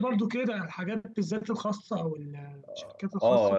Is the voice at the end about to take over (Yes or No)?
Yes